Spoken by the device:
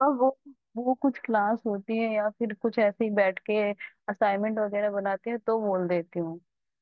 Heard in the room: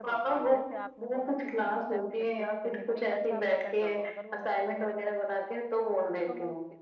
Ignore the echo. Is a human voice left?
Yes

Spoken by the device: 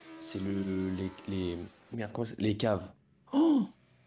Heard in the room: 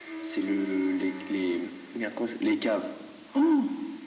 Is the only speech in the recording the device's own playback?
Yes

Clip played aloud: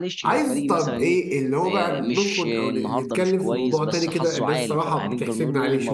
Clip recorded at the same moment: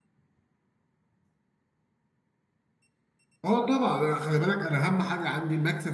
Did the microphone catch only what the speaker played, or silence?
No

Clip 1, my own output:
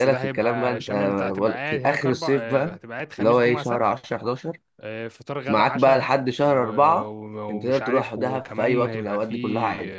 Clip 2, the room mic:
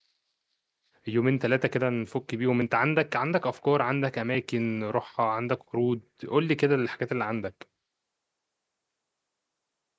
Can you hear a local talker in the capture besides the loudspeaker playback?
Yes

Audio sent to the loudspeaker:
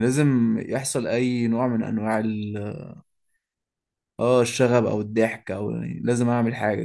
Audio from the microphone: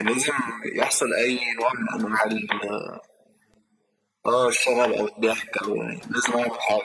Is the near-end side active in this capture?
No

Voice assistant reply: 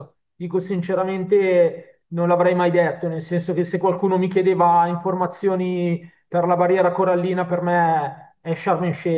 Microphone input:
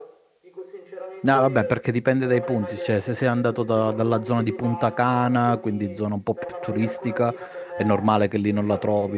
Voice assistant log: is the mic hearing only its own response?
No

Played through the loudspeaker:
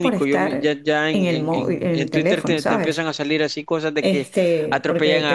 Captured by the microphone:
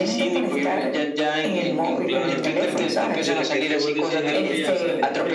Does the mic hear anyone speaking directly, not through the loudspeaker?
Yes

